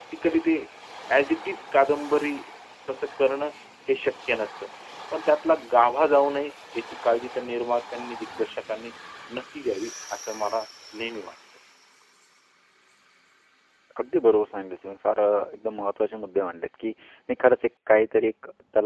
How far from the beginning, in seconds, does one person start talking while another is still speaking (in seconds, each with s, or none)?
none